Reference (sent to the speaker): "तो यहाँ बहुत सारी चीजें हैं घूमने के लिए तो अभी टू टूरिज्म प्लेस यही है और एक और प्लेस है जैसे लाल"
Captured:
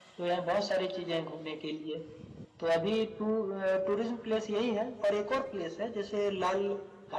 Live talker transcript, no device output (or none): none